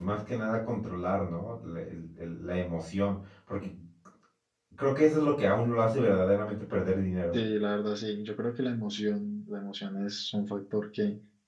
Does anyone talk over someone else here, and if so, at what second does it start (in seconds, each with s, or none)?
none